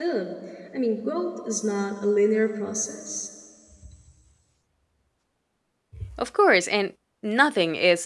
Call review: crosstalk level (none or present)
none